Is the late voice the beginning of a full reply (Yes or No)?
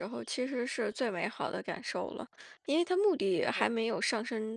No